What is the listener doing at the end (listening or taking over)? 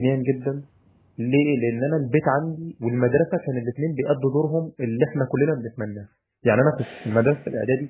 listening